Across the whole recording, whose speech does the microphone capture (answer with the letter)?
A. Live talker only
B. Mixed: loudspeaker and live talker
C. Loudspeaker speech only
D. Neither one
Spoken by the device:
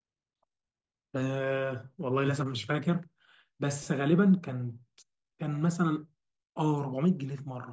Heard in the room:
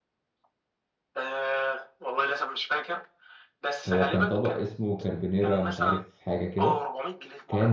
B